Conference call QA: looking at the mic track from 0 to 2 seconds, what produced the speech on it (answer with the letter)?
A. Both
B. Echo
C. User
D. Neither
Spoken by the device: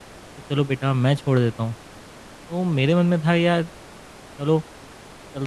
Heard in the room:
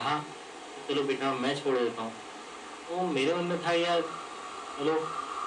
B